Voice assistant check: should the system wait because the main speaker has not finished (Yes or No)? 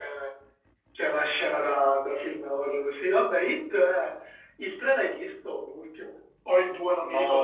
No